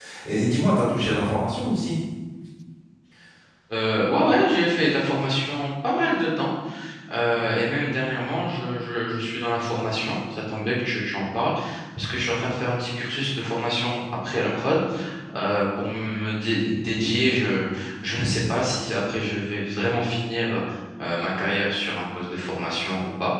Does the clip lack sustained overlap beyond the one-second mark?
Yes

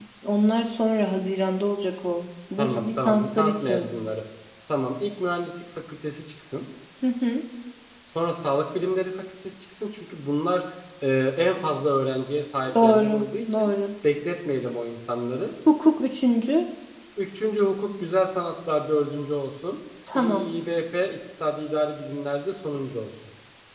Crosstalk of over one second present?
Yes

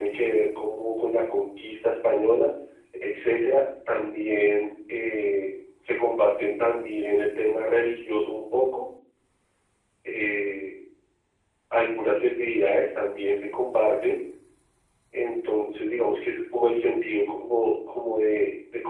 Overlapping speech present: No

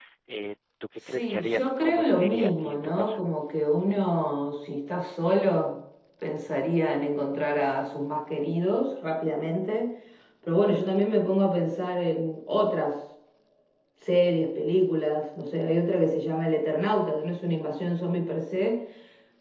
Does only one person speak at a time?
No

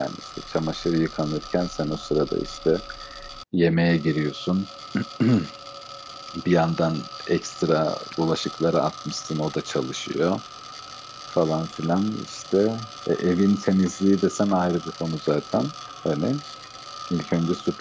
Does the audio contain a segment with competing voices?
No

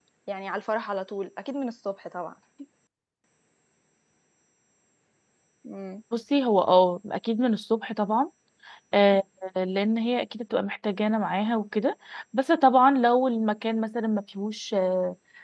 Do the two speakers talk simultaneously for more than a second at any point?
No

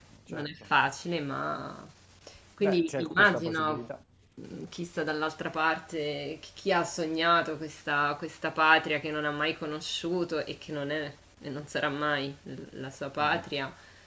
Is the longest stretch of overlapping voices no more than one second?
No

